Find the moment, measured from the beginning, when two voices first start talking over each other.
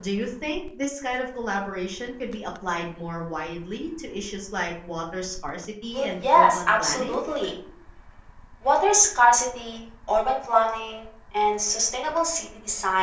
5.9 s

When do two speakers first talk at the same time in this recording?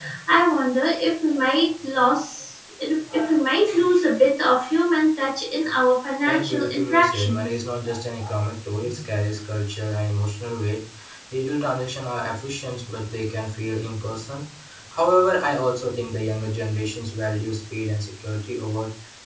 6.2 s

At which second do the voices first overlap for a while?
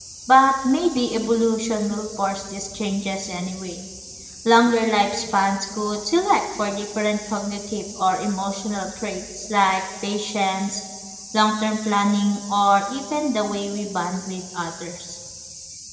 none

